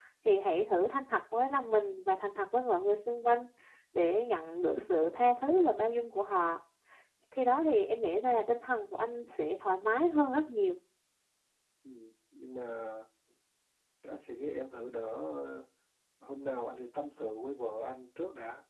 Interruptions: none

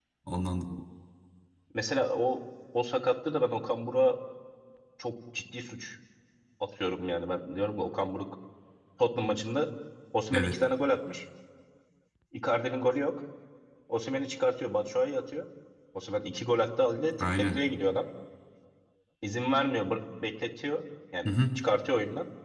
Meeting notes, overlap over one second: none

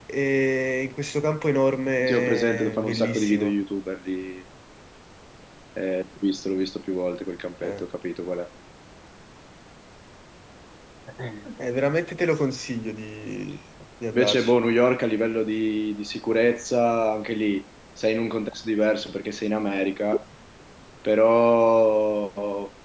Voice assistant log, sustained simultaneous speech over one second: present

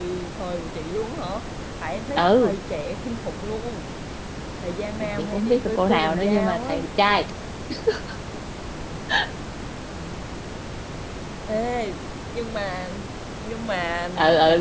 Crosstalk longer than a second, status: present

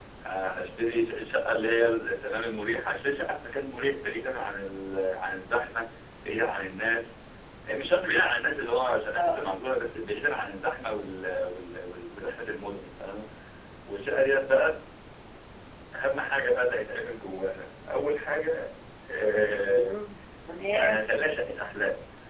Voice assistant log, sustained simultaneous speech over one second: none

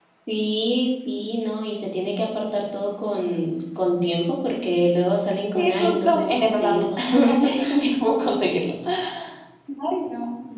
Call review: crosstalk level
present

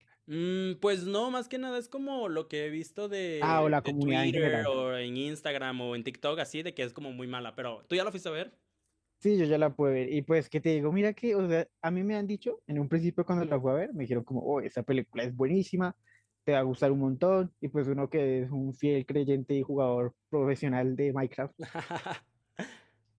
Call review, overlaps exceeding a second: present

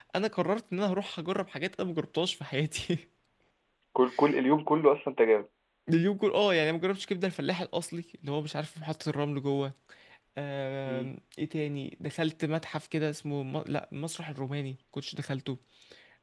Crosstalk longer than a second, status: none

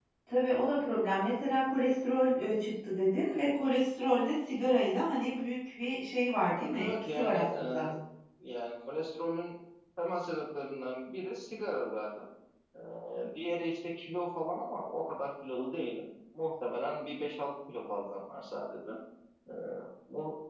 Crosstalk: present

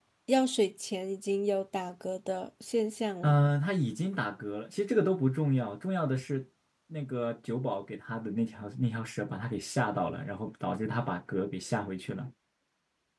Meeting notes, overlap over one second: none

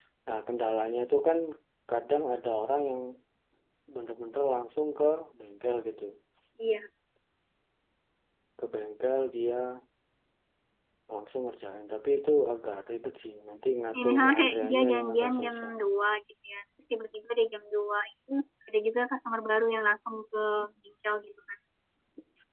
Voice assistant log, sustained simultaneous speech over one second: present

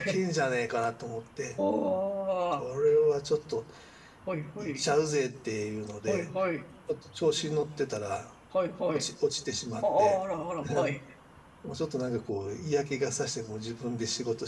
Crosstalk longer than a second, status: none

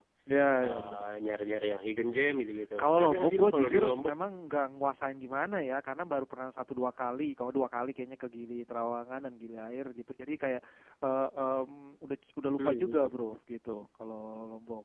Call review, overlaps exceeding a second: present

